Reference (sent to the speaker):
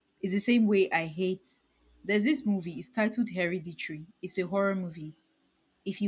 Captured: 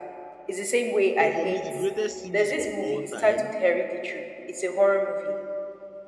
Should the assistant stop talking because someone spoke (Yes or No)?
Yes